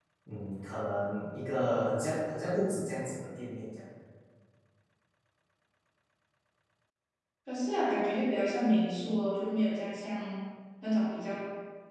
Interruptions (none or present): none